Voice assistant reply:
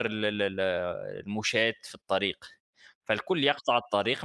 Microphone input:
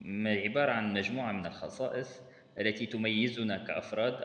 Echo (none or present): none